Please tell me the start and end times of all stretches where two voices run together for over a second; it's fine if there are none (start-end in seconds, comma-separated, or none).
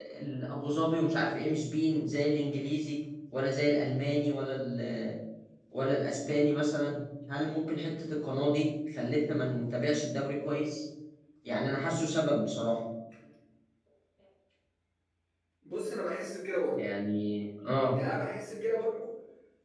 none